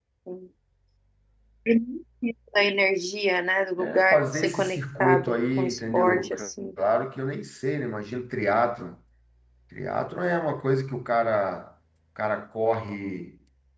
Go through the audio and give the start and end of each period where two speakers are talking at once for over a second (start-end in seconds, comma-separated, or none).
3.8-6.3